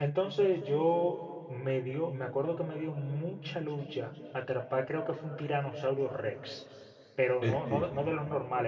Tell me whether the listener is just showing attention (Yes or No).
Yes